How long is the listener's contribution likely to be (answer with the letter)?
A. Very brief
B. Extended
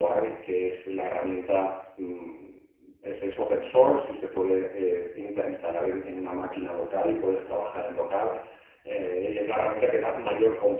A